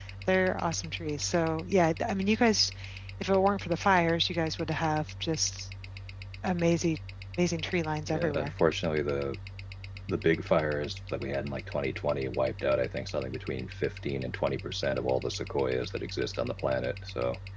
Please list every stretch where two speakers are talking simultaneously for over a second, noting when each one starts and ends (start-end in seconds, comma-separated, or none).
none